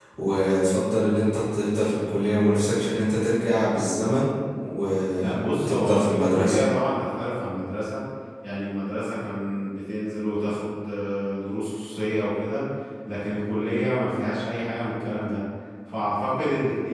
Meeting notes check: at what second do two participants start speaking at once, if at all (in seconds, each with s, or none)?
5.2 s